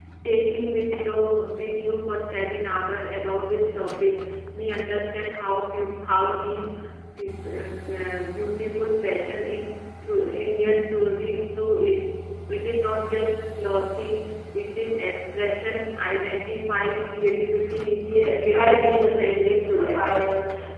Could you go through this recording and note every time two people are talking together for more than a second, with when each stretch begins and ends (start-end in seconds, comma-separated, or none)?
18.4-20.1